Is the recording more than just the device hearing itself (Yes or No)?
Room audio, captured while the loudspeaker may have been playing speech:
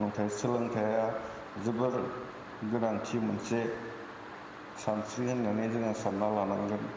Yes